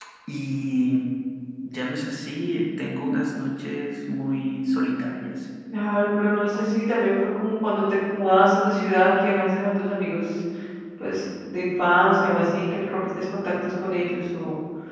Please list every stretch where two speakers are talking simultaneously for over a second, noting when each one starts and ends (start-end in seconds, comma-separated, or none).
none